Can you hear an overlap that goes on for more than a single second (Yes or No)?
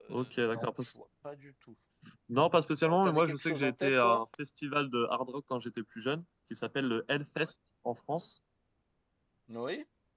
Yes